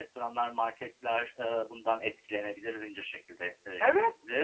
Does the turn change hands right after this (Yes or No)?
Yes